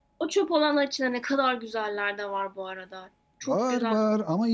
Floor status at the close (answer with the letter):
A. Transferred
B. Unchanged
A